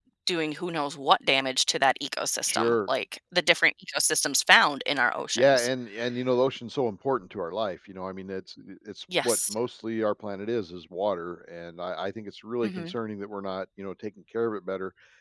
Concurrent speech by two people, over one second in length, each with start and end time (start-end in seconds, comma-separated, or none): none